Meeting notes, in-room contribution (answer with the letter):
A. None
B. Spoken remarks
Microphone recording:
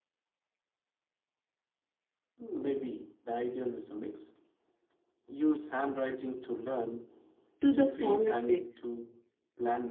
B